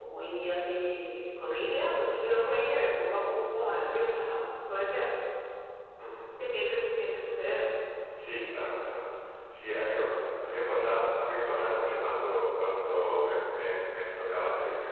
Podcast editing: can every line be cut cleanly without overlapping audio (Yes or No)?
Yes